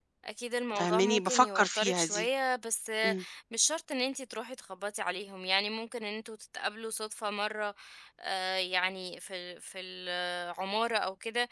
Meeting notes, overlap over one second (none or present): present